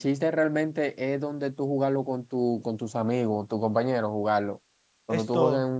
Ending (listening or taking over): listening